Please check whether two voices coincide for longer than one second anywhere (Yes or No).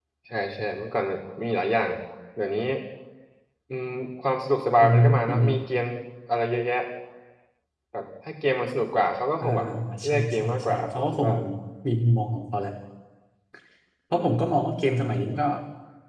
Yes